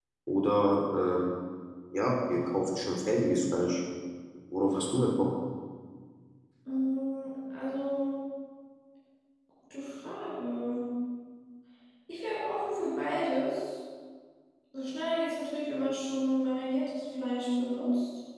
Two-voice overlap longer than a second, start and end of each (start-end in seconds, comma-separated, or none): none